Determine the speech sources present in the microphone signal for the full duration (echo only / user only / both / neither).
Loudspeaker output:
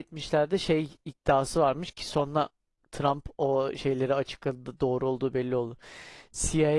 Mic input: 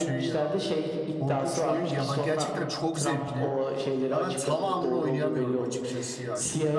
both